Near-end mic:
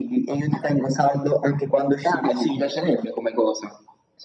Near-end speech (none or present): none